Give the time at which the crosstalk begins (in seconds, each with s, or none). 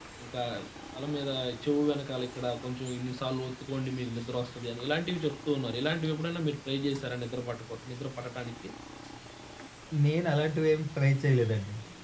none